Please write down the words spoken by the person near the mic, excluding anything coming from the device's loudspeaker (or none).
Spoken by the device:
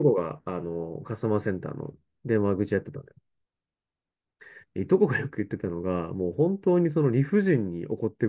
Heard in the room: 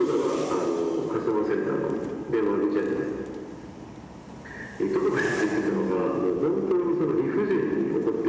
その、